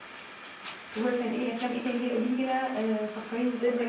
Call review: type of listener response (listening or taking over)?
taking over